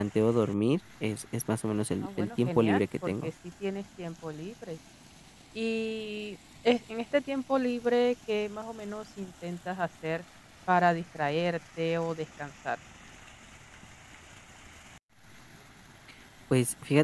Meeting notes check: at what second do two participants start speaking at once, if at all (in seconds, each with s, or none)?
2.0 s